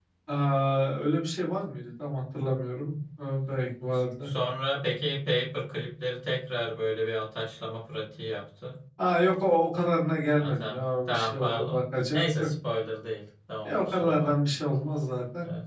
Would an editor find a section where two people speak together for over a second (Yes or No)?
Yes